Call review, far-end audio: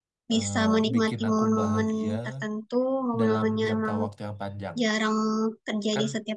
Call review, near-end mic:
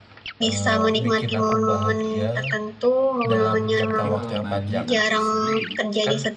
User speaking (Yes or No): Yes